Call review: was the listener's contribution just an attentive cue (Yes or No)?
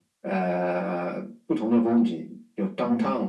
No